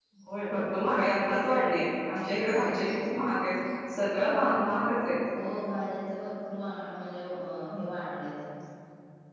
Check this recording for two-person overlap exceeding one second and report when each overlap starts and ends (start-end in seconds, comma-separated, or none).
none